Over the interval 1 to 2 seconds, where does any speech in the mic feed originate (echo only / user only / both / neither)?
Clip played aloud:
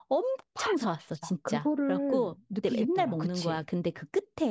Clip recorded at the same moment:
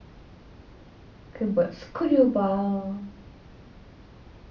user only